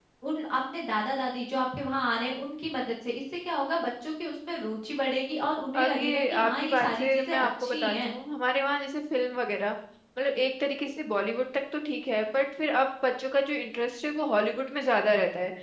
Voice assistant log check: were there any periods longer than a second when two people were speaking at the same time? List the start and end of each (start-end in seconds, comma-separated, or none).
5.8-8.1